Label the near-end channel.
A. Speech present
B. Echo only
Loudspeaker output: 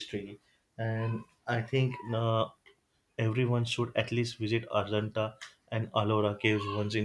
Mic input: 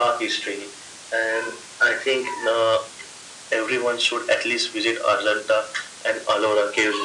B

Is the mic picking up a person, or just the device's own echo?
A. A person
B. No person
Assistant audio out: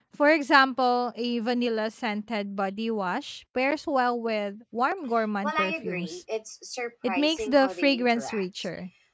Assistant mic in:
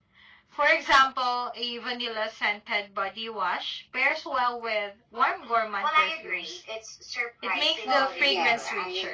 A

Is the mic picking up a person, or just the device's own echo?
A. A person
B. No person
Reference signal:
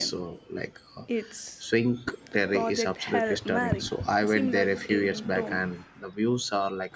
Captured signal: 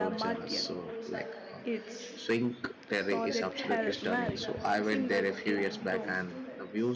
A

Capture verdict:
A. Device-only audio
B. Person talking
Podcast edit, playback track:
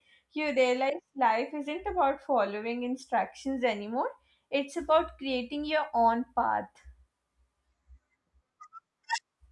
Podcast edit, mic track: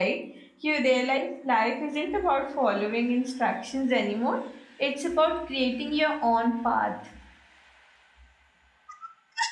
A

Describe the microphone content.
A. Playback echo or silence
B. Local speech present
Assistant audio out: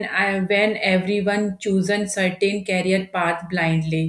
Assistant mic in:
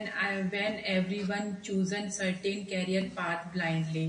A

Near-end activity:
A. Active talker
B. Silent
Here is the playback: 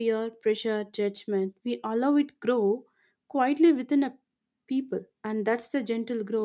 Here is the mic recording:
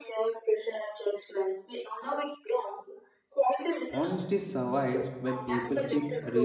A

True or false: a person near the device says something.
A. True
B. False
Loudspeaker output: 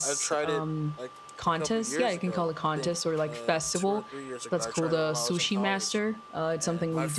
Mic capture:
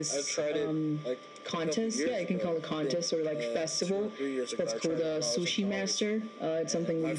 B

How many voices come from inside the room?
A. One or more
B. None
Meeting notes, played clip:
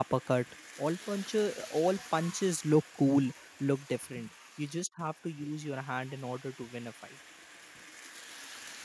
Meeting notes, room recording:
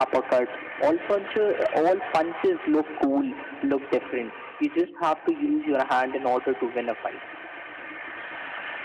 B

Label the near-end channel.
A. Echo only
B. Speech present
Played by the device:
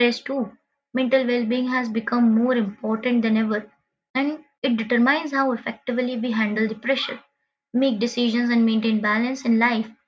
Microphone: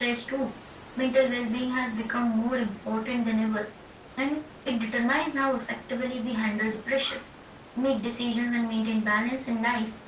A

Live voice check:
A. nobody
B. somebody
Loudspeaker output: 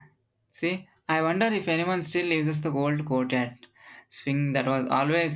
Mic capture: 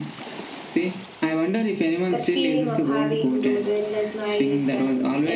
B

